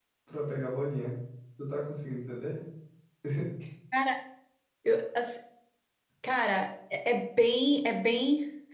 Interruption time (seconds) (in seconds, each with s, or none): none